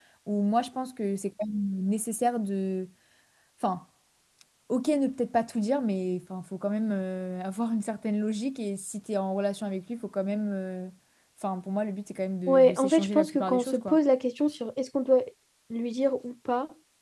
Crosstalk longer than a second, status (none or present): present